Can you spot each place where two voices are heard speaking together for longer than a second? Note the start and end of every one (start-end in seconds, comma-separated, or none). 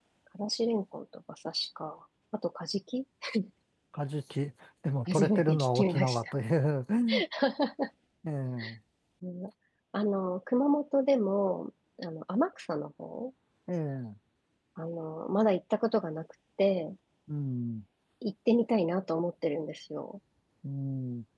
5.1-6.3